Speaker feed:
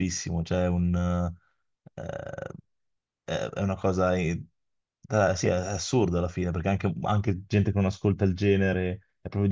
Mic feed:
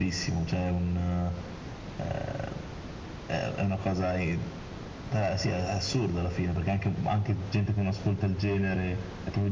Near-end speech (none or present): none